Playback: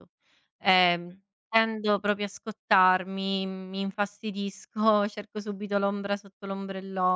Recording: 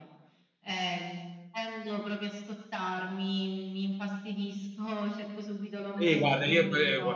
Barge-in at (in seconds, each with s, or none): 6.0 s